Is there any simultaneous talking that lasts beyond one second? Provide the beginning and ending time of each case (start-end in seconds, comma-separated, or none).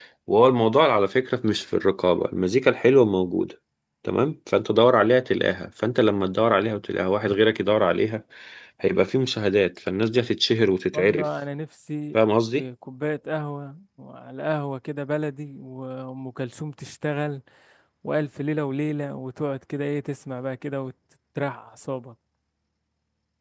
none